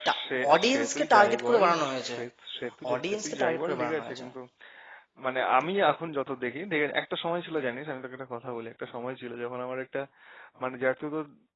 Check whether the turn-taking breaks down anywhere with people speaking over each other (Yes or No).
Yes